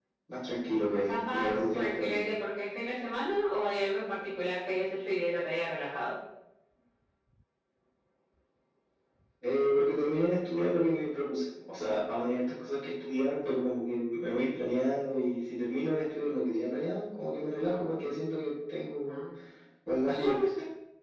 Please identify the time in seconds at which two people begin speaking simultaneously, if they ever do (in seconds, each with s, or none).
0.9 s